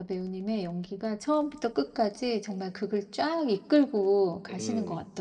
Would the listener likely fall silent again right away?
No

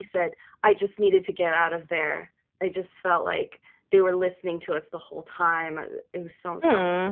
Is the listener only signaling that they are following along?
No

